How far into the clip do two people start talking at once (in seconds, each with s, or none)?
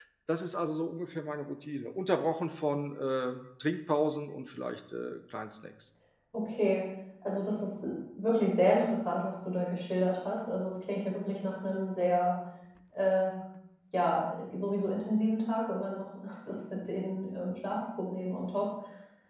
none